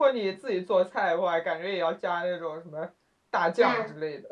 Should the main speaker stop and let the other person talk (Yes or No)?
Yes